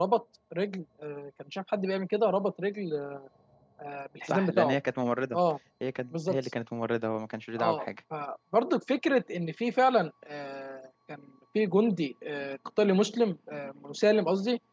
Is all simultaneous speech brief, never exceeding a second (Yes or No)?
Yes